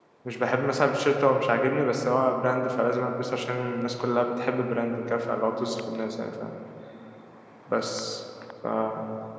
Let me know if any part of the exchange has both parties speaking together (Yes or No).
No